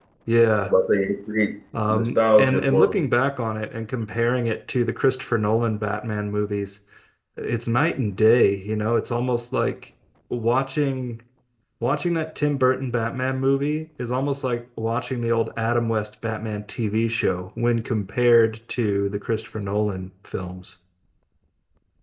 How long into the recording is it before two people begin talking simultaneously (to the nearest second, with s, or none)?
2 s